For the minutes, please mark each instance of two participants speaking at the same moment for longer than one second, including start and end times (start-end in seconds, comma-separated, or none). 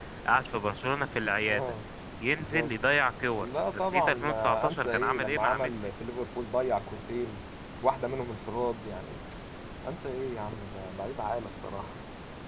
3.4-5.7